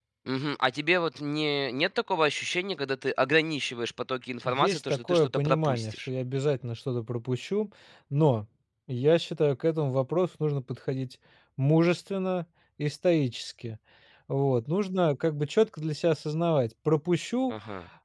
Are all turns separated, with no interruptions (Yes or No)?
No